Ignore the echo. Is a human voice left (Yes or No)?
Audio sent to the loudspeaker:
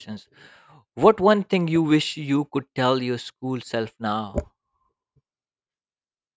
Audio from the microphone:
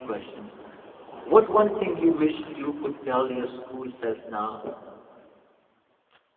No